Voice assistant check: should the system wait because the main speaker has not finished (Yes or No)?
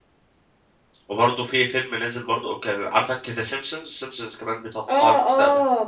No